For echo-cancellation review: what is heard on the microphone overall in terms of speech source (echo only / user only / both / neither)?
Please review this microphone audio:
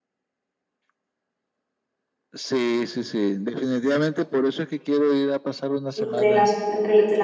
both